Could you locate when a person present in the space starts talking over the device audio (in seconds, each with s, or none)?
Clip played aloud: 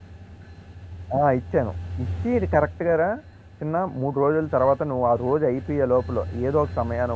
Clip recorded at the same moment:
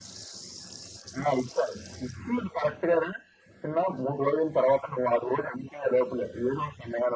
none